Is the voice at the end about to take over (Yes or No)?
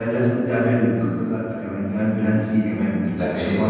No